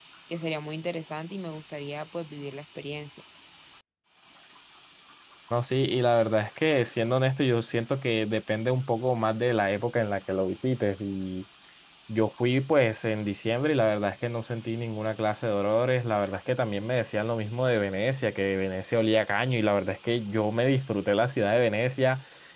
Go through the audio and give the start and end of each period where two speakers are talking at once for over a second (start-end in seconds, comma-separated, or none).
none